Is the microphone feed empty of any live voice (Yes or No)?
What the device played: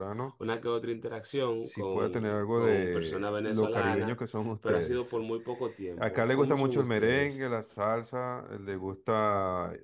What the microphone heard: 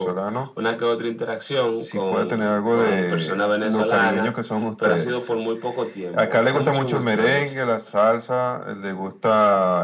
Yes